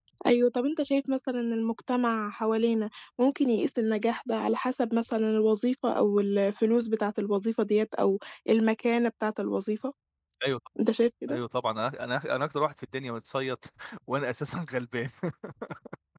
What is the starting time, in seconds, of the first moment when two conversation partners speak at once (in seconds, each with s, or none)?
none